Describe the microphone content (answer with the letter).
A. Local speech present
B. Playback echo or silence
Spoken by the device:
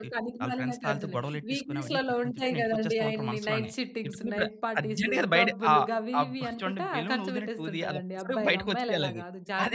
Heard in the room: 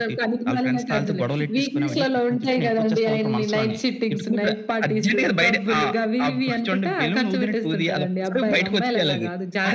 B